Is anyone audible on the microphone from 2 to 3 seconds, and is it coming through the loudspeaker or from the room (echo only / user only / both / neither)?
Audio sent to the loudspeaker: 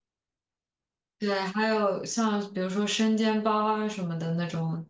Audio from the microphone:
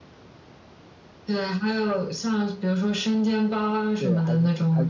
echo only